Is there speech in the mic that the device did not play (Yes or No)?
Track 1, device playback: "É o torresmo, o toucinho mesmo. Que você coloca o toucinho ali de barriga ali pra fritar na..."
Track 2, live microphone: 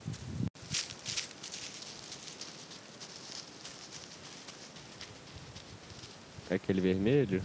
Yes